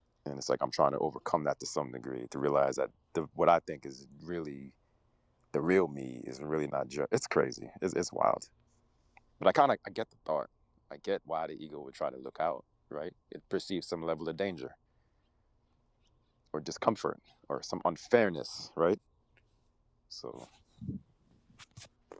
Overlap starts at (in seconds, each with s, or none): none